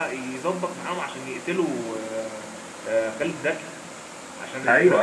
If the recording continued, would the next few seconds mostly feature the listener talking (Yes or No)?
No